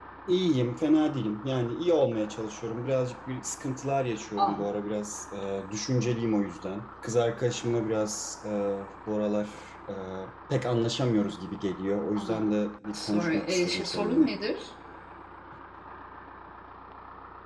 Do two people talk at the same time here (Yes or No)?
Yes